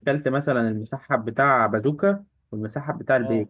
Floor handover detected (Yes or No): No